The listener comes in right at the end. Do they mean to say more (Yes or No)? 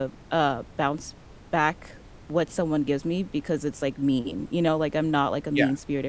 No